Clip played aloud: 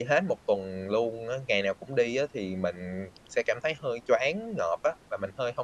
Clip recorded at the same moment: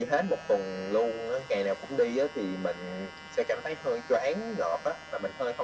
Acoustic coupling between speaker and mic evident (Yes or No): Yes